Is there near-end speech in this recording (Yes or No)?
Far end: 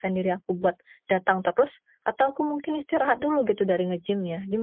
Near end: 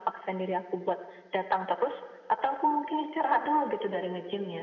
No